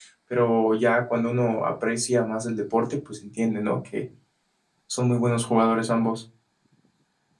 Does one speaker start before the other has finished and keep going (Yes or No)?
No